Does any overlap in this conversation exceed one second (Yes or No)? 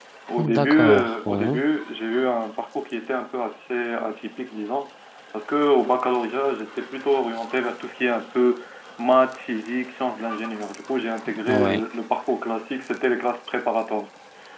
Yes